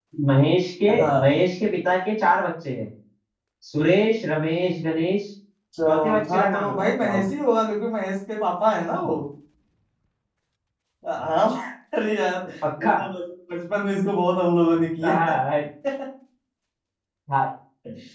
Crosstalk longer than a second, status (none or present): present